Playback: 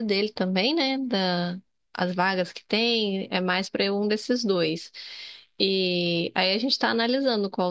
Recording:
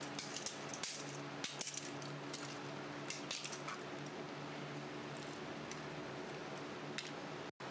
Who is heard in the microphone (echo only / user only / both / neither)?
neither